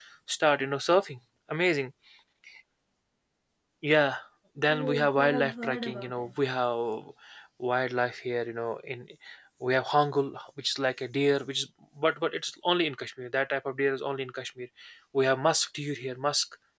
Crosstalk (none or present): present